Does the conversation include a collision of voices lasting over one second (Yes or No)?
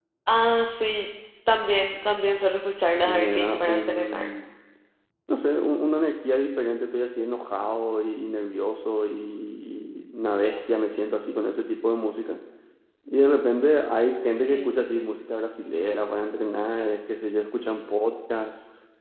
Yes